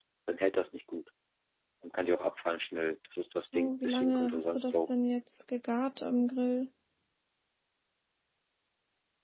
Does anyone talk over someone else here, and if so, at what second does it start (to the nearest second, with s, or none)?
4 s